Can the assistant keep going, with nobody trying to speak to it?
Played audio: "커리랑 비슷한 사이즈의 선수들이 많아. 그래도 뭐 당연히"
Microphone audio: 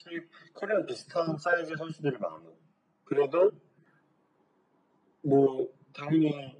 Yes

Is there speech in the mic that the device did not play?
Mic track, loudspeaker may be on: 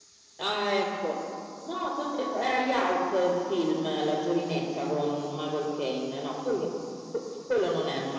No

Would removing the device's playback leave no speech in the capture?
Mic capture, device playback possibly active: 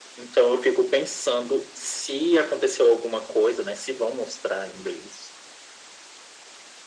Yes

